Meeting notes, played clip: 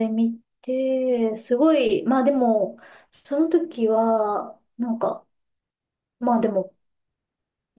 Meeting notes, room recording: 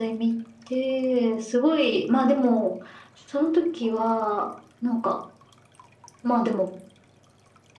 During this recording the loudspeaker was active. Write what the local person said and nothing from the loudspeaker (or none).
none